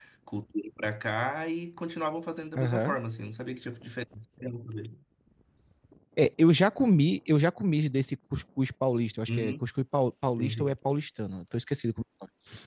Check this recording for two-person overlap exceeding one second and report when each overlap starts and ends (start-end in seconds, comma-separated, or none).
none